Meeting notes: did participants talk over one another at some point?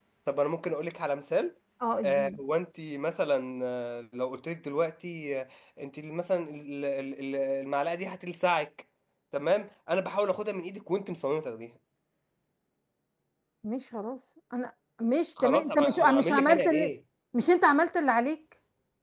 Yes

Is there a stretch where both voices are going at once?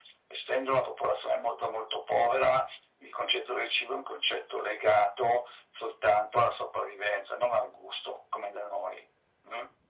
No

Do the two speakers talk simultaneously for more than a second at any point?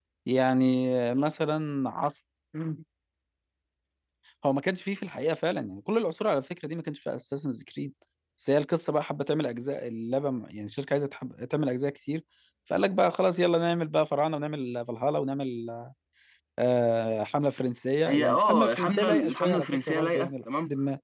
Yes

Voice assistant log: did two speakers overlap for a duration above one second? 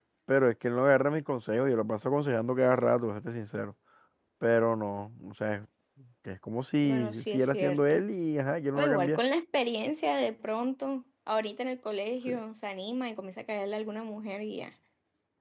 Yes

